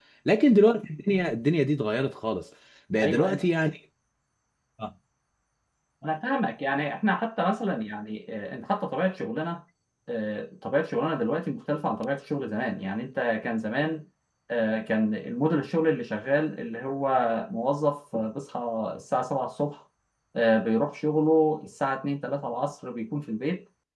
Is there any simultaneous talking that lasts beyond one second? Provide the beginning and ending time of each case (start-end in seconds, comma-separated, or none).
none